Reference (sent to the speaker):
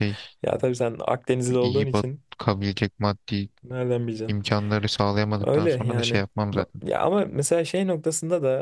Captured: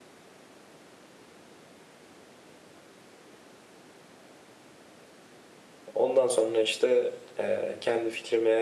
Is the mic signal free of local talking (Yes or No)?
No